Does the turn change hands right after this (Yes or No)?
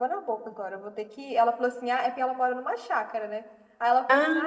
No